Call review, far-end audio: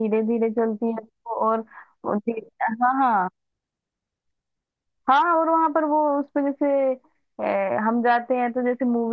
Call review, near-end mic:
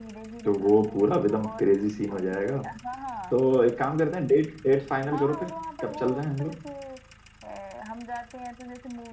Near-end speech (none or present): present